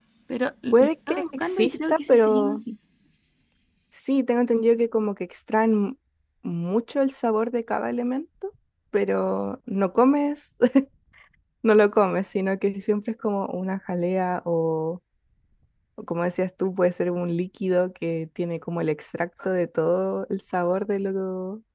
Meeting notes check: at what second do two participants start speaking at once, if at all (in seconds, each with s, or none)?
0.7 s